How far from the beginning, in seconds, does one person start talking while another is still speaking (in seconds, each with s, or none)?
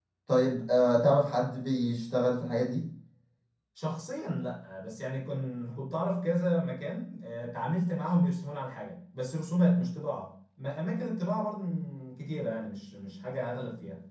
none